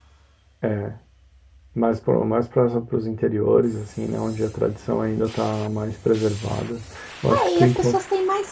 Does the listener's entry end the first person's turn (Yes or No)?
Yes